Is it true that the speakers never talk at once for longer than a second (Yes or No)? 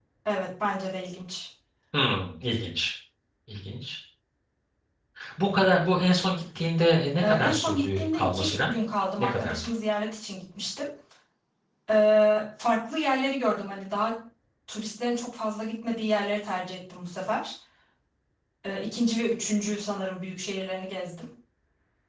No